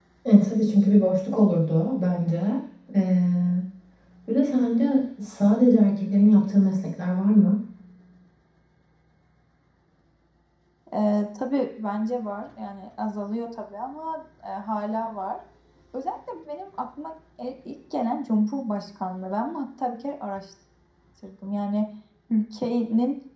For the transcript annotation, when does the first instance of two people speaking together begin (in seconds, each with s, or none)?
none